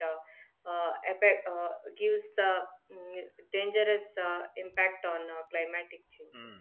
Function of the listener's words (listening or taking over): taking over